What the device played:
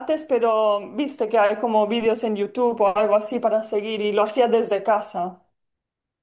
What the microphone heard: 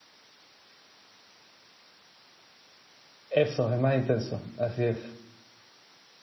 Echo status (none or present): none